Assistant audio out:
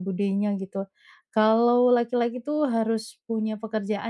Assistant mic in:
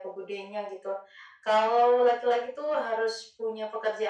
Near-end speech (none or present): none